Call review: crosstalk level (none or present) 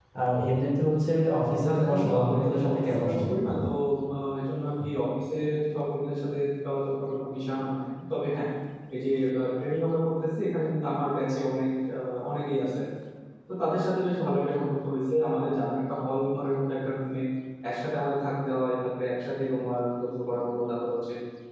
present